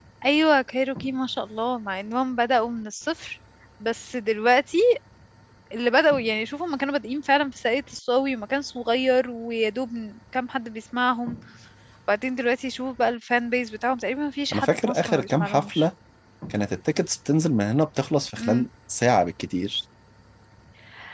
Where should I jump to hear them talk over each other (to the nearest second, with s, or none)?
15 s